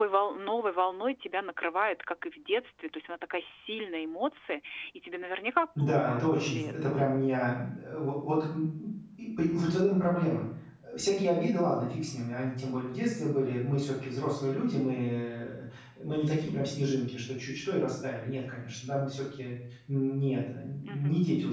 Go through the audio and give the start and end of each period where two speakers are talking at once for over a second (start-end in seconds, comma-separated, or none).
5.8-7.0